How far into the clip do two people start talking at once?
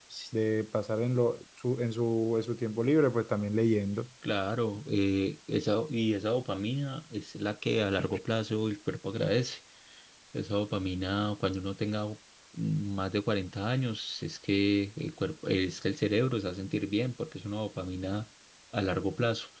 none

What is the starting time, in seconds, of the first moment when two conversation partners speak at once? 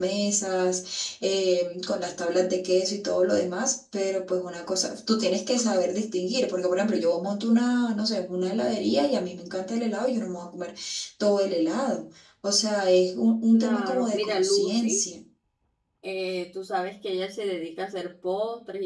14 s

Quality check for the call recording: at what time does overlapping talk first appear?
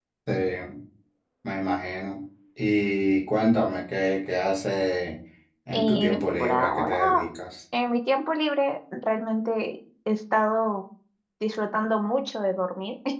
6 s

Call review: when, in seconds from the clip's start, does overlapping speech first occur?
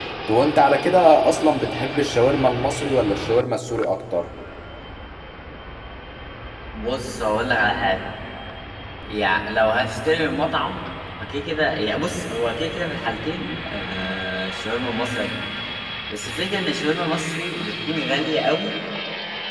none

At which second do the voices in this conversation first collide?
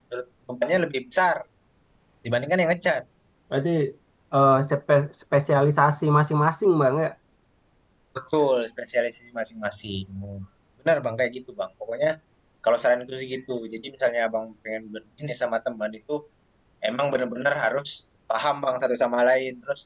none

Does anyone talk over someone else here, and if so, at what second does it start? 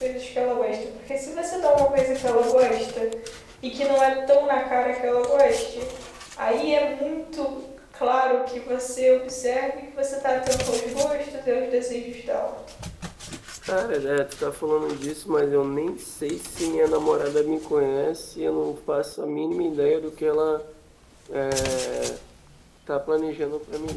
none

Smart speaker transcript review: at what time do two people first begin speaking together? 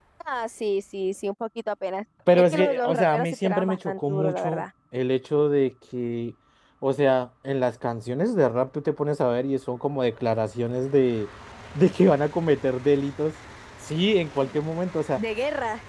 3 s

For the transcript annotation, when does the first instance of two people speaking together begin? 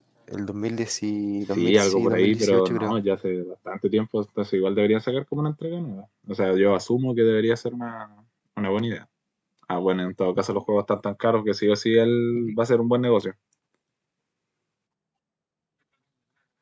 2 s

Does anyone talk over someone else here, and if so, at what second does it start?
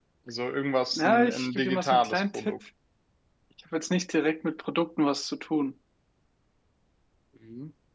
1 s

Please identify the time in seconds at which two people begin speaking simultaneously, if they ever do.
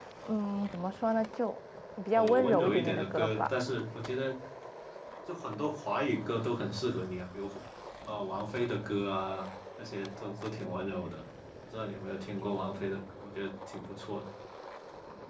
2 s

